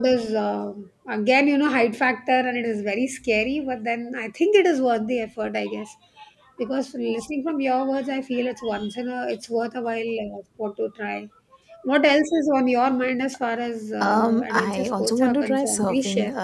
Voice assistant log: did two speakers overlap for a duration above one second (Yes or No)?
Yes